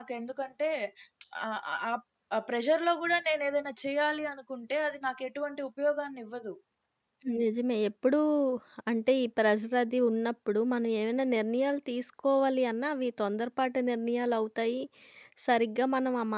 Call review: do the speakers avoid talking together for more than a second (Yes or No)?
Yes